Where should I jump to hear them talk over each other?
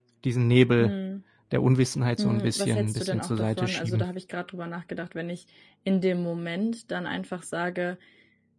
2.2 s

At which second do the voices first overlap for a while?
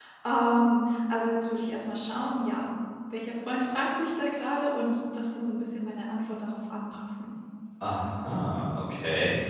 none

